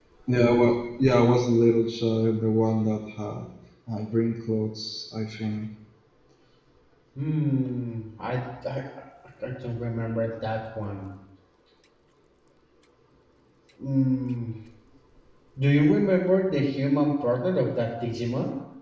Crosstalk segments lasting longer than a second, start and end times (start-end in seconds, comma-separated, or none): none